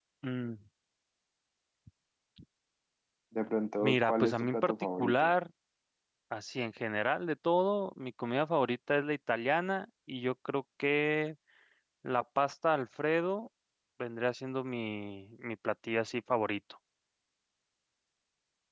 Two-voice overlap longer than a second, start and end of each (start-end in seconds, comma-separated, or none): 3.8-5.3